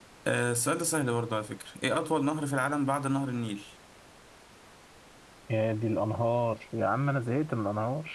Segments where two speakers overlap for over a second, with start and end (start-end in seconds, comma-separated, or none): none